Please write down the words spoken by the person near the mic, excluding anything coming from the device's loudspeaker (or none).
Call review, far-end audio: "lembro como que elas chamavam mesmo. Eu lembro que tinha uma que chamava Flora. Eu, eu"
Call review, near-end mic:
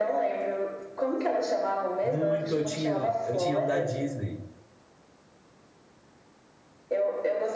Muito, eu tinha, eu tinha um da Disney,